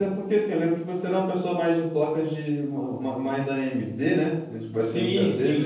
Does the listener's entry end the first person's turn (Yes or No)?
Yes